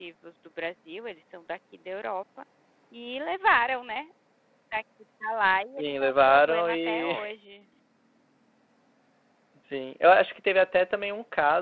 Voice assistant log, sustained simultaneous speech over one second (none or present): present